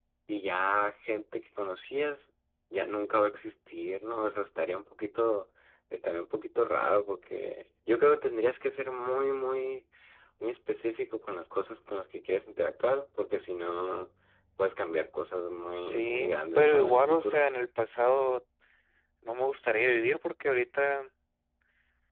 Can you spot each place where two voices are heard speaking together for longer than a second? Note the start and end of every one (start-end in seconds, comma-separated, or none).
15.8-17.4